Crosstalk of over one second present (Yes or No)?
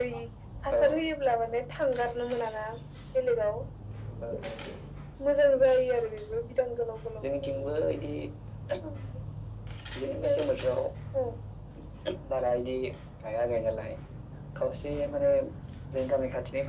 No